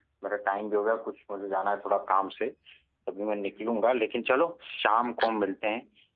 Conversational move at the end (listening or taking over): listening